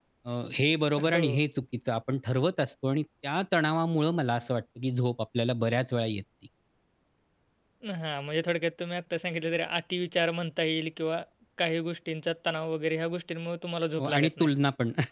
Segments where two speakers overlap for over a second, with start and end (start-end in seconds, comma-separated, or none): none